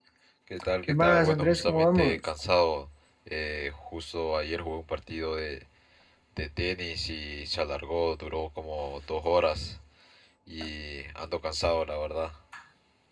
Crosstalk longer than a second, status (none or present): present